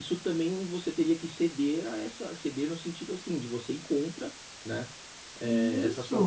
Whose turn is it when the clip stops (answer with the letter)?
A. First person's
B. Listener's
A